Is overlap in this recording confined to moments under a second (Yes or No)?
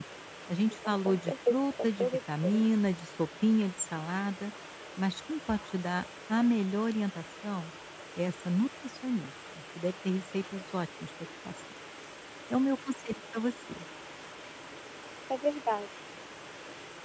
No